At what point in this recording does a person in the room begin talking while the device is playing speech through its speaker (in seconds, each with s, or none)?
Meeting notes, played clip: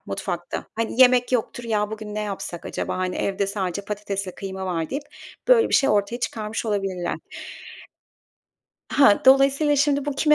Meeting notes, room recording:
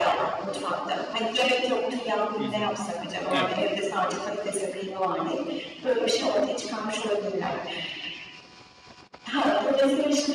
2.4 s